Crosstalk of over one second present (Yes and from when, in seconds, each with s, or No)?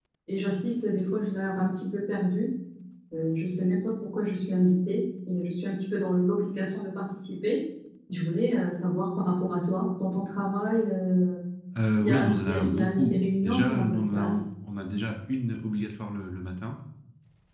Yes, from 12.0 s